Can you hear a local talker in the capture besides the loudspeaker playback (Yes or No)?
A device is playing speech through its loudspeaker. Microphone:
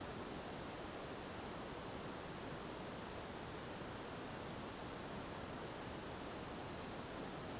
No